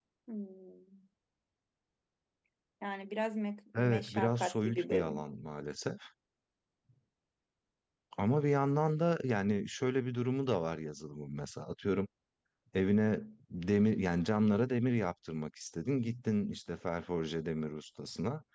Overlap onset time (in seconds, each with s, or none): 3.8 s